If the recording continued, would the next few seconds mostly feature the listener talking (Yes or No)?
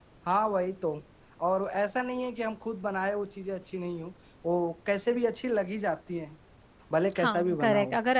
Yes